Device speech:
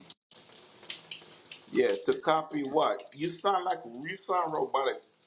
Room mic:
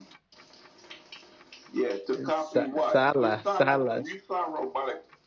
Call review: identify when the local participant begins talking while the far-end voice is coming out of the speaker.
2 s

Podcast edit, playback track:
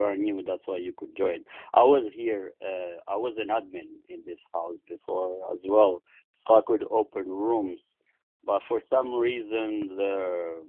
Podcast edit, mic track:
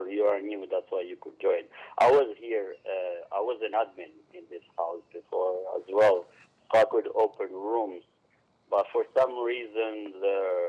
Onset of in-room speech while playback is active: none

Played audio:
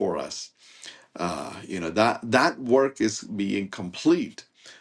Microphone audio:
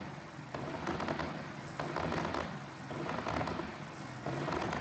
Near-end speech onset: none

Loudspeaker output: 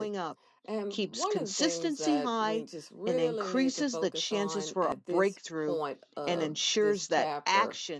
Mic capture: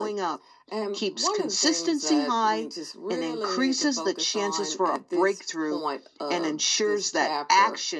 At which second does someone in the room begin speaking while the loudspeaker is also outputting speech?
none

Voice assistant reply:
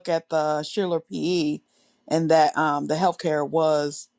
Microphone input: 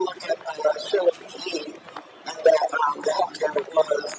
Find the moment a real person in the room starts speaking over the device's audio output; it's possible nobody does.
none

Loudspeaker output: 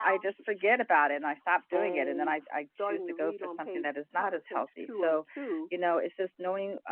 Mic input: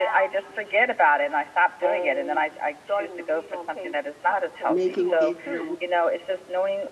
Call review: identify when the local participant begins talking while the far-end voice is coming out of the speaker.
5 s

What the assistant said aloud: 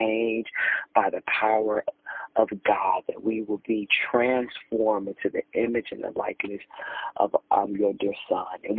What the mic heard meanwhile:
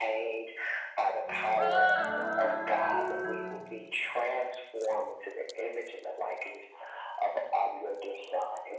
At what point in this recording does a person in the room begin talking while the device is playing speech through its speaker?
1 s

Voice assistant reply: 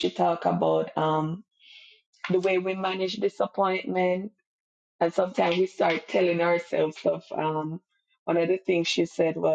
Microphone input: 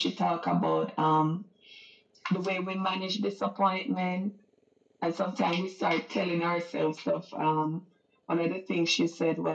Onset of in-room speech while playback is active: none

